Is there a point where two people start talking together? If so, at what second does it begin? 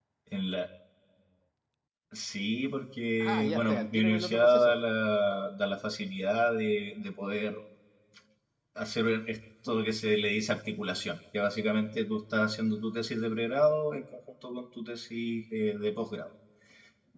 3.2 s

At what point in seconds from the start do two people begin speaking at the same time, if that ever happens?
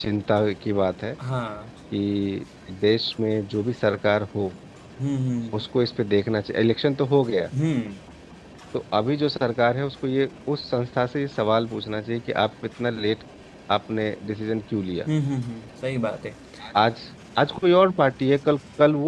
none

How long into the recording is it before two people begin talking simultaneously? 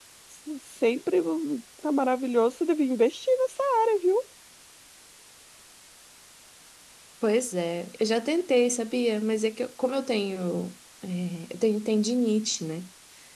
none

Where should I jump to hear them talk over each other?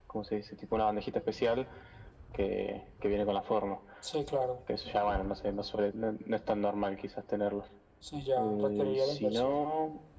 8.4 s

